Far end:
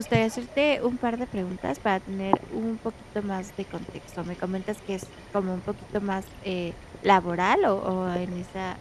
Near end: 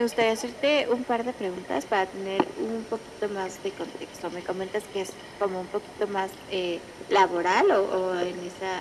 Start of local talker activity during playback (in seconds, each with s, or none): none